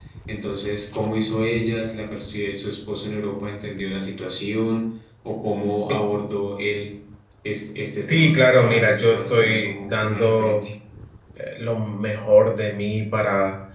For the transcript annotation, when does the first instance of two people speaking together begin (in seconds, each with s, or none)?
8.0 s